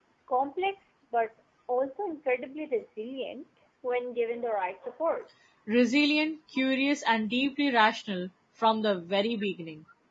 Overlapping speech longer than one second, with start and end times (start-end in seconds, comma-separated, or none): none